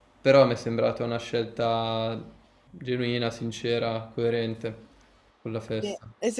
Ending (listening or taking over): taking over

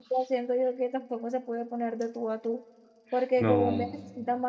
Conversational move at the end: listening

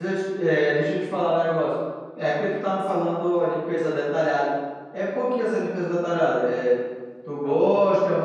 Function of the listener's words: listening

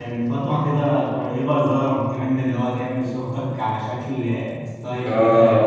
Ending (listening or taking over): taking over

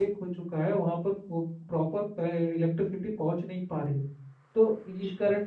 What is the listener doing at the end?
listening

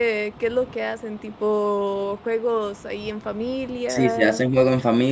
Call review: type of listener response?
taking over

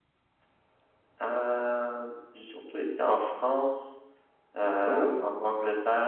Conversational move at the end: listening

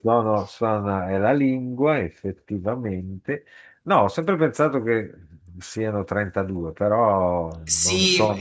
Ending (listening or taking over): taking over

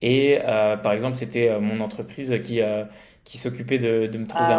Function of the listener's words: listening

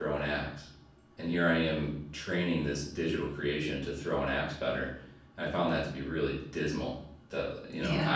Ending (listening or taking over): listening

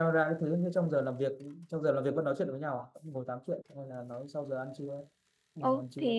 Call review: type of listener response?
taking over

